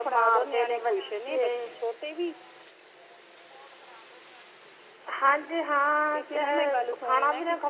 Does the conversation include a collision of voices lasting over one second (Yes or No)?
Yes